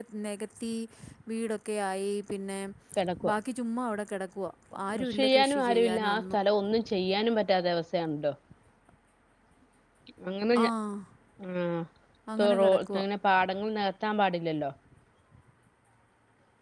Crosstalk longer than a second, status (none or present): present